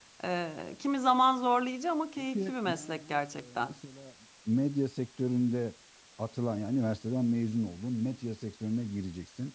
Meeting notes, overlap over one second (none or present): present